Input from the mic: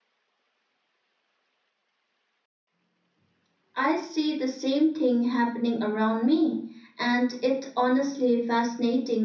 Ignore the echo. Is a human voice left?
Yes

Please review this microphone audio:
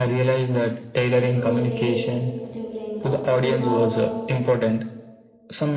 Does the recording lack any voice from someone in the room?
No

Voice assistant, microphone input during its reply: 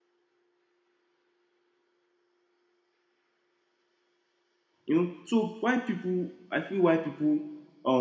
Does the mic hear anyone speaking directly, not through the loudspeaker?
Yes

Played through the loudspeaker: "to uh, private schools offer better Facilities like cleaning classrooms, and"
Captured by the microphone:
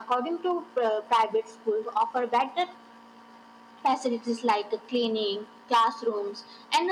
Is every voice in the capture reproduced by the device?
Yes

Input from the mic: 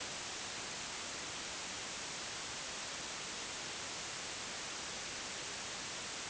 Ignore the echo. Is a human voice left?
No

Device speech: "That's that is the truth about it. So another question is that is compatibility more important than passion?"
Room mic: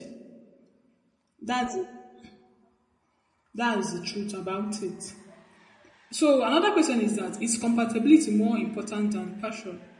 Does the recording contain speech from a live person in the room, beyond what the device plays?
No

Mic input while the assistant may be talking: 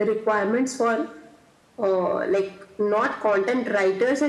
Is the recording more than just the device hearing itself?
No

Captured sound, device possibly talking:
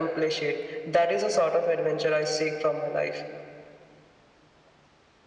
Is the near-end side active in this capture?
No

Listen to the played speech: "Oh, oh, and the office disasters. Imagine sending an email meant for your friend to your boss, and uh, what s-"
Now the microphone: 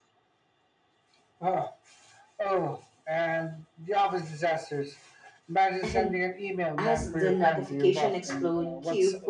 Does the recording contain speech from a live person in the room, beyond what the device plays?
Yes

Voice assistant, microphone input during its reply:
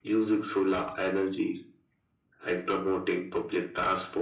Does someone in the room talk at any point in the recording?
No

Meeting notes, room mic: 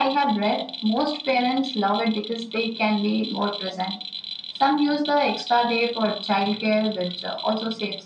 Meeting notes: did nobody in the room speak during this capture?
Yes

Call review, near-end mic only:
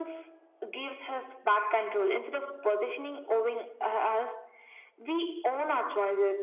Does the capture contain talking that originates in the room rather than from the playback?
No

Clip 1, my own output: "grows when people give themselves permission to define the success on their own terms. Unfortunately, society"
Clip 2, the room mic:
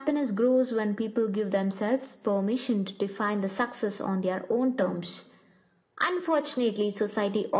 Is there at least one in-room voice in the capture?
No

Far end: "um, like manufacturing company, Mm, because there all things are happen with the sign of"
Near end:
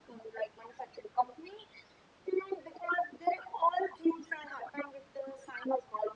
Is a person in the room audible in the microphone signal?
No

